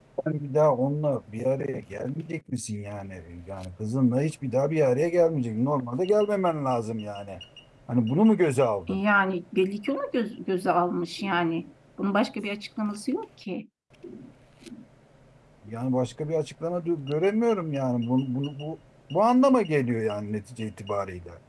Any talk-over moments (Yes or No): No